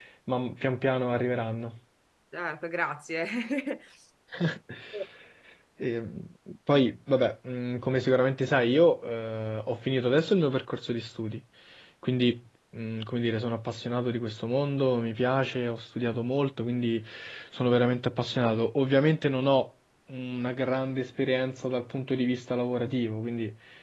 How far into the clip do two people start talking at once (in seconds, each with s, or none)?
none